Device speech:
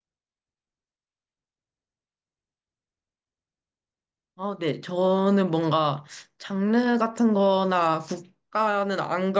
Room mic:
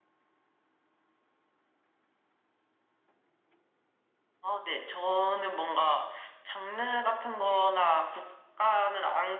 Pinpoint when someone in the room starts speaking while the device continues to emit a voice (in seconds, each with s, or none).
none